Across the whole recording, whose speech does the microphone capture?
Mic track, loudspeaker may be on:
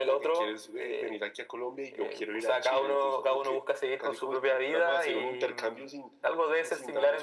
echo only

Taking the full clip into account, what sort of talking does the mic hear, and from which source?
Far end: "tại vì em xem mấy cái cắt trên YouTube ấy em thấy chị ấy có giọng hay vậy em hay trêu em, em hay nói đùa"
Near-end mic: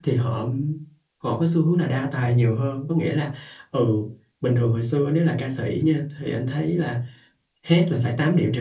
user only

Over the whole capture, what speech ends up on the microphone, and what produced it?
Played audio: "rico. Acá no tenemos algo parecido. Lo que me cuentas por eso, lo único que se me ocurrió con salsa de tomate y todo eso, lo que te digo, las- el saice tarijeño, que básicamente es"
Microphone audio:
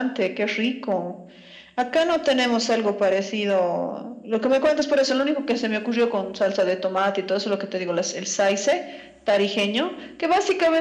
echo only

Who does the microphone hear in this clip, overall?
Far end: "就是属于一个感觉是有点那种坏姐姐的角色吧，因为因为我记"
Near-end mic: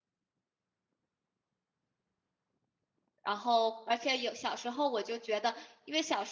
user only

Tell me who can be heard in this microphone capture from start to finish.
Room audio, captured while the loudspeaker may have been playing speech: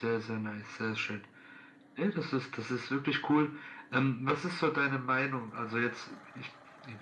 echo only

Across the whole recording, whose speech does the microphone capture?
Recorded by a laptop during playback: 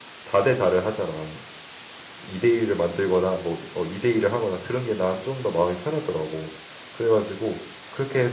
user only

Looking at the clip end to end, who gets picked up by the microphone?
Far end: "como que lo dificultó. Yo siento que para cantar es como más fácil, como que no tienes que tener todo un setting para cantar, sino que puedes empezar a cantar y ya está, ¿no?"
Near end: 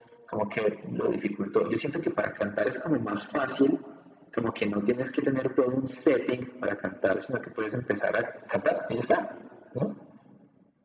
echo only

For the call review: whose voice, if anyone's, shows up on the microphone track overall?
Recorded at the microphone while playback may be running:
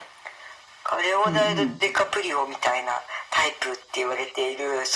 both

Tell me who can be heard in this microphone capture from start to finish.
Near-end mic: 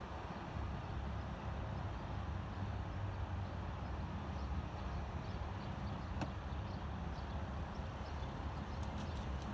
neither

